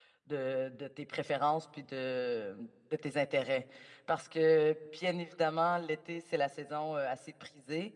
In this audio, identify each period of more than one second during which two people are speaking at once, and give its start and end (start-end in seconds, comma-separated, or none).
none